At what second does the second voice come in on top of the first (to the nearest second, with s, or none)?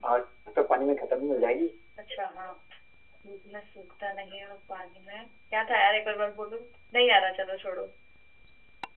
none